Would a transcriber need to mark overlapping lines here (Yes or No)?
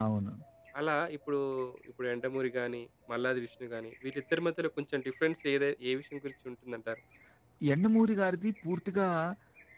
No